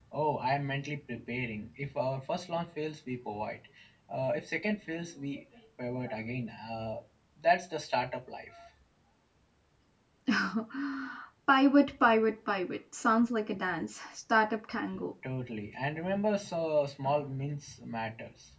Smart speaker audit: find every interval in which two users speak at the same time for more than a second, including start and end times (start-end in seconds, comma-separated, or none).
none